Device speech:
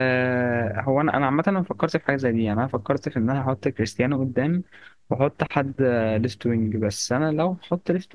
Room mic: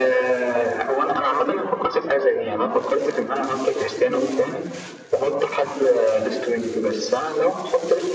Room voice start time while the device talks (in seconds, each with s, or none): none